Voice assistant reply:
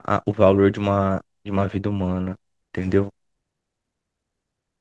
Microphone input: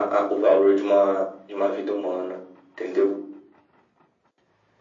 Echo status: present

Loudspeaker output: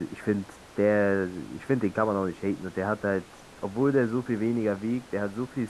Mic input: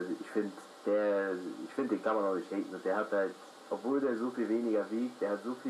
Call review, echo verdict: present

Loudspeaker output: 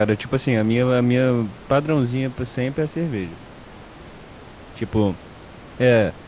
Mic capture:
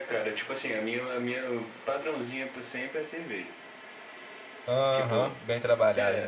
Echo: present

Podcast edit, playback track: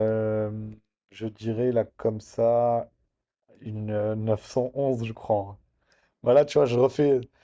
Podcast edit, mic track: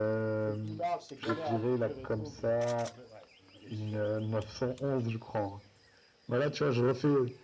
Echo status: present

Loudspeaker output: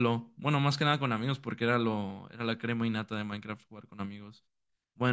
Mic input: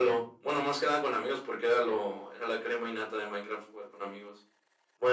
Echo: present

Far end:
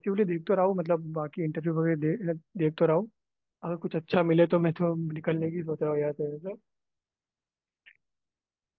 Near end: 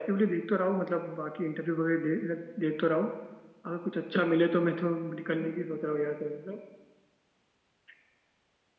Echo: present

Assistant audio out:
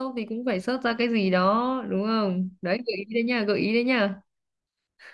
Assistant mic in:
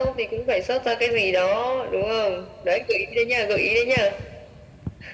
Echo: present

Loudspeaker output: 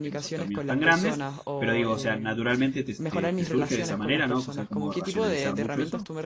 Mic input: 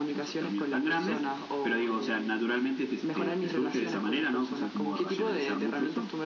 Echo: present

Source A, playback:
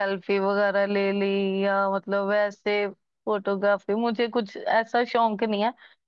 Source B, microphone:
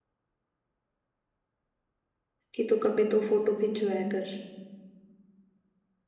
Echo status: none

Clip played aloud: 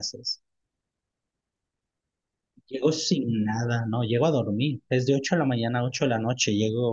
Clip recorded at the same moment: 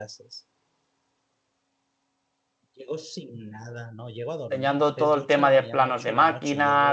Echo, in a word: present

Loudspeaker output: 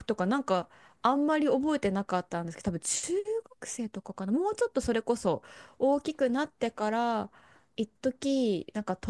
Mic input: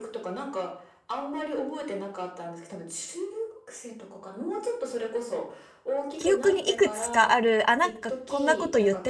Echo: present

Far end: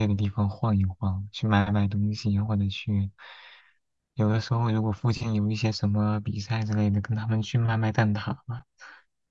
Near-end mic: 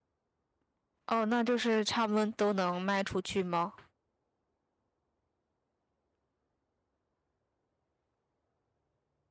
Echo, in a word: none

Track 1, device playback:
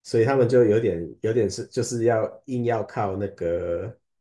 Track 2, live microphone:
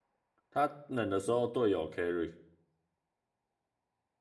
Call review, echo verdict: none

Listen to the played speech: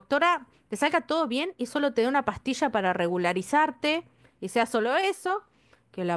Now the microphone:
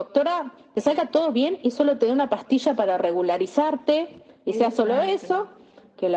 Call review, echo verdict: present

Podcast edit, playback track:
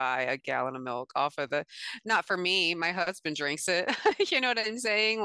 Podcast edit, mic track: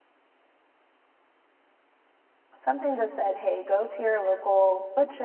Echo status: none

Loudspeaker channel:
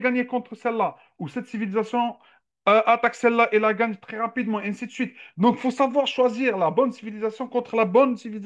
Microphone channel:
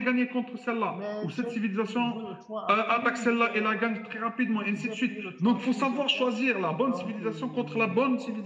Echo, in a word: present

